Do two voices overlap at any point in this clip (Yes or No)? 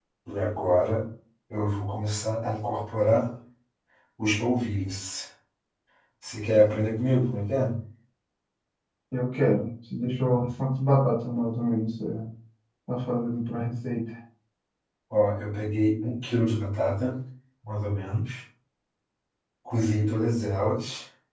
No